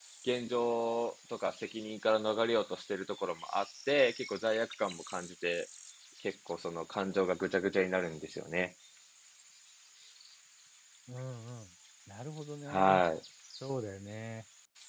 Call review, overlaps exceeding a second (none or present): none